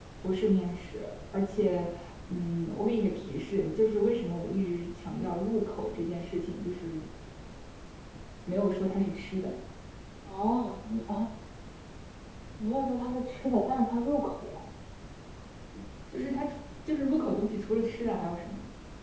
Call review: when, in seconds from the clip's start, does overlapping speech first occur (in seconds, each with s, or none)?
none